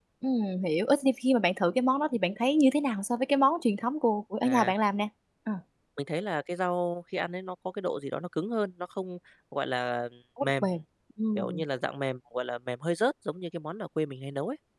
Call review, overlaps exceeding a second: none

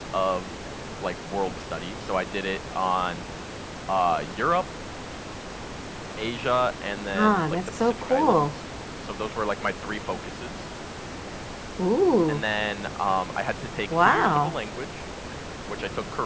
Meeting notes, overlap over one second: present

